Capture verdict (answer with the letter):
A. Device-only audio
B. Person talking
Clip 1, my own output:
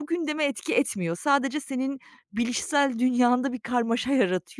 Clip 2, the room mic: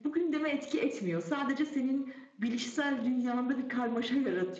A